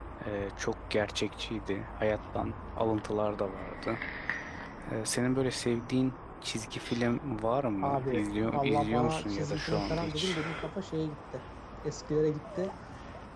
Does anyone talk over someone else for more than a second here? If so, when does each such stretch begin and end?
7.8-10.4

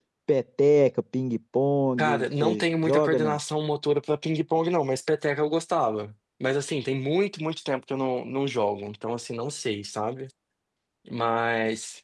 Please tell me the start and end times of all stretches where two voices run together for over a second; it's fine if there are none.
2.0-3.4

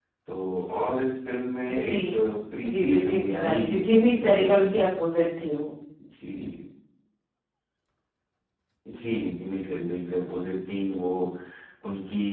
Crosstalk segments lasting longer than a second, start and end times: 2.7-4.7

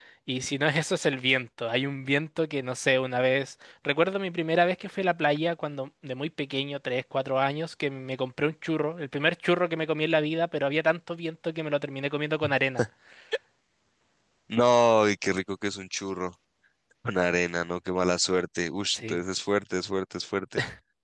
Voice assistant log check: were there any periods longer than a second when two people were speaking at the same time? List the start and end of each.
none

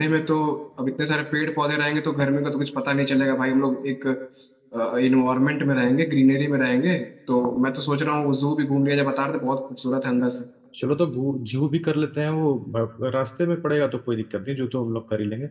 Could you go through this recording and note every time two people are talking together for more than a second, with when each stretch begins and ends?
none

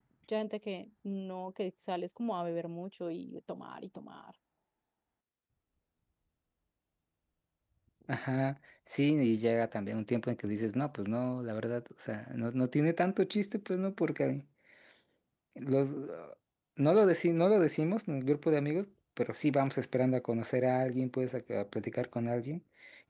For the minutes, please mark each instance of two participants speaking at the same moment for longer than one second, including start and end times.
none

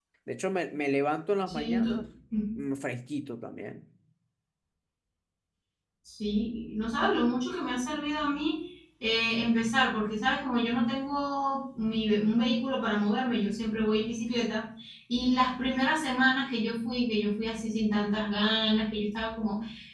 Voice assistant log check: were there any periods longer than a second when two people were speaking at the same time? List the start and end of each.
none

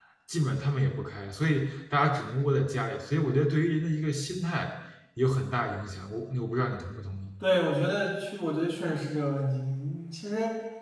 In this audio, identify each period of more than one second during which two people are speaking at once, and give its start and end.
none

